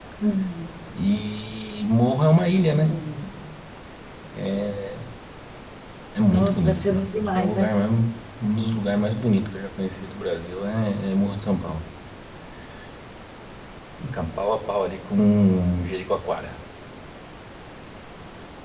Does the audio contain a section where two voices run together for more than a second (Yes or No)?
Yes